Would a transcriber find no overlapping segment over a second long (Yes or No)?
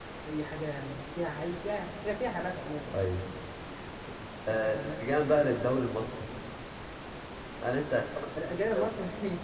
No